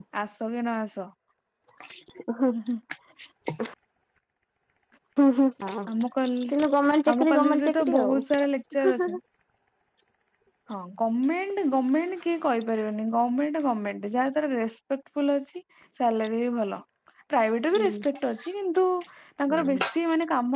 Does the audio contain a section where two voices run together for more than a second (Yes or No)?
Yes